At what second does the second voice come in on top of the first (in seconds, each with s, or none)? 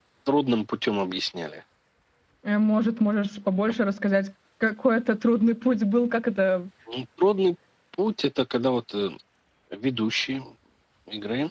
none